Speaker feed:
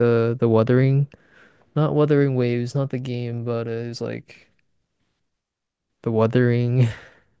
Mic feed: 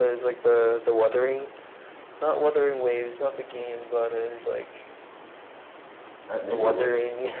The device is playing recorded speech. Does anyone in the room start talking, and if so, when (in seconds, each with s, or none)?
6.3 s